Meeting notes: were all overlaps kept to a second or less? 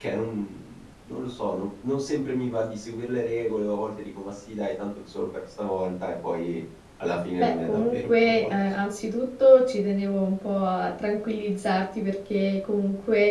No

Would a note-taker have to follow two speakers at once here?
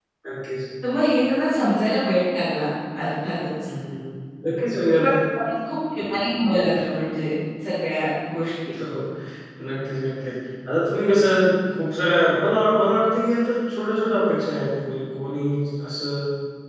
No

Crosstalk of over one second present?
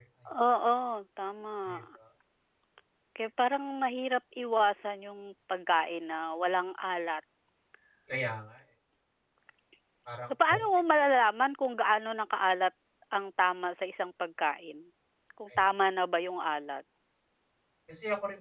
No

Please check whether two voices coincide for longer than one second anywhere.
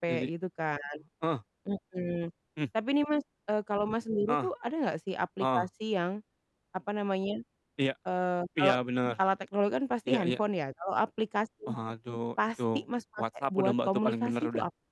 Yes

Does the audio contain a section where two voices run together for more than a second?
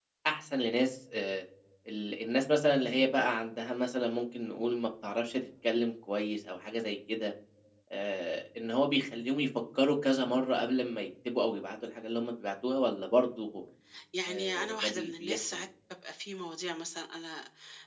Yes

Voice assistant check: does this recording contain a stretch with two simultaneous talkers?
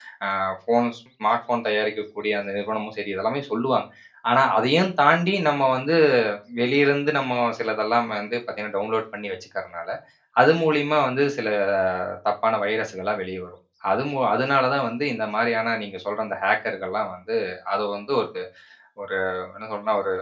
No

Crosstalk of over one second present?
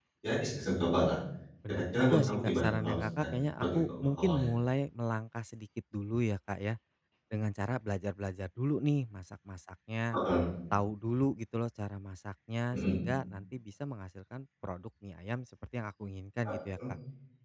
Yes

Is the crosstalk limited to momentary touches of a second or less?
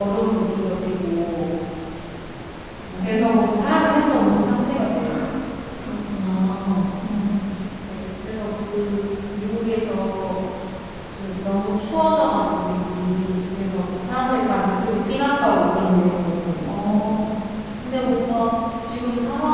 Yes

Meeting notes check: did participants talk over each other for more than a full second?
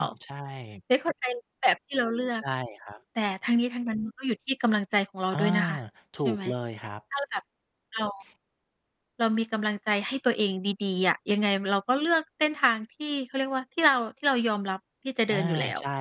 No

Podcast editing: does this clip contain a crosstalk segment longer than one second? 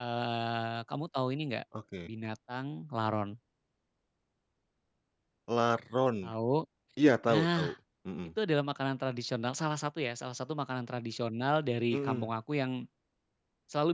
No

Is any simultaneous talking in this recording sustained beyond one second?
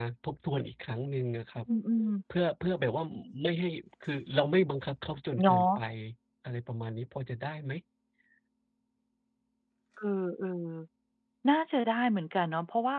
No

